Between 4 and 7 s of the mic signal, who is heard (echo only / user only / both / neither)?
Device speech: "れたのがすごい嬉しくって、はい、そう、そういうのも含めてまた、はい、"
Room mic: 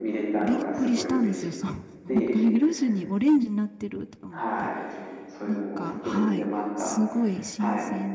both